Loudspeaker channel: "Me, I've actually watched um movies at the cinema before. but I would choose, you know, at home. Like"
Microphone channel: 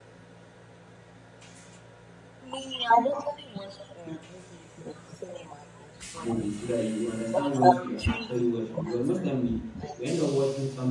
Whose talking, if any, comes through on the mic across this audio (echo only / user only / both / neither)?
both